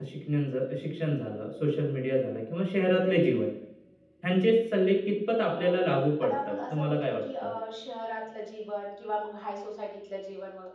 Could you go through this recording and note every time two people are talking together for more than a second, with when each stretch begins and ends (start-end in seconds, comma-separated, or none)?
6.2-7.5